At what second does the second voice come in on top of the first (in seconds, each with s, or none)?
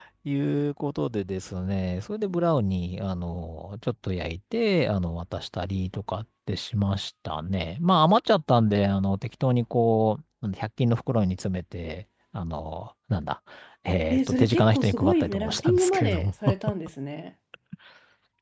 14.1 s